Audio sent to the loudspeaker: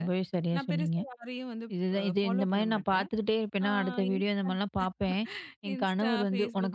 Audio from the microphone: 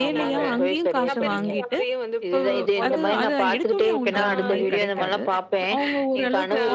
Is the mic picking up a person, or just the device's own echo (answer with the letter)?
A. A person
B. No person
A